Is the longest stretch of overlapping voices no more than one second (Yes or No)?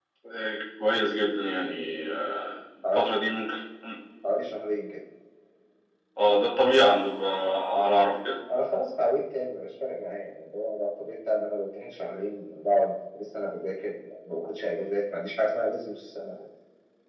Yes